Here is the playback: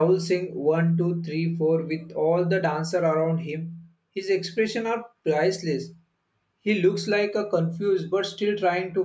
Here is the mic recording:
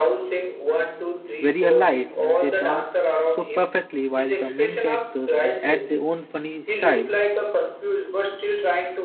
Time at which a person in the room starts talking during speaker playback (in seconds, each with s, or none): 1.4 s